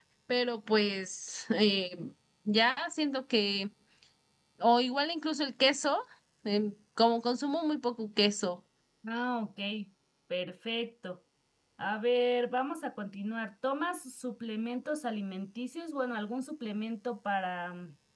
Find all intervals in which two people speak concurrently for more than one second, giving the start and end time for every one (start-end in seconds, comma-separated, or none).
none